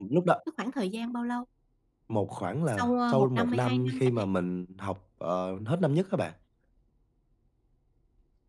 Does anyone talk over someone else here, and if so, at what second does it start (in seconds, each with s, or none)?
2.7 s